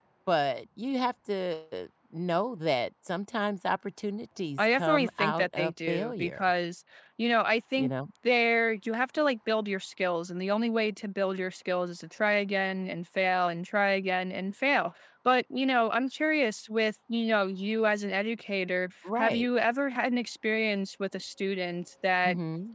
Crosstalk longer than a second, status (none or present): present